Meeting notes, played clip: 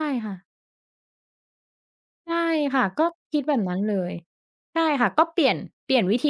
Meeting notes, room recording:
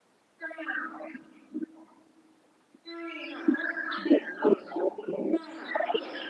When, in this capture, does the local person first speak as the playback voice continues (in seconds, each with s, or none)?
none